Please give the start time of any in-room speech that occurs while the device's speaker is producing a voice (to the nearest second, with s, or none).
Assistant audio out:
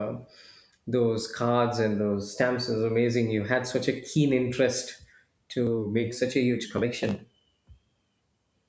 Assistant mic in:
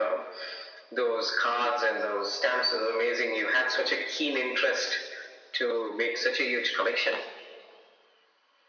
none